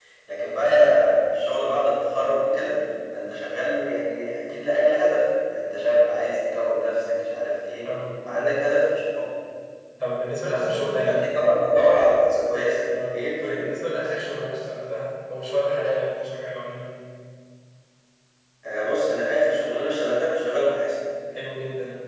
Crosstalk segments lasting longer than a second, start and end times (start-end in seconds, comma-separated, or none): none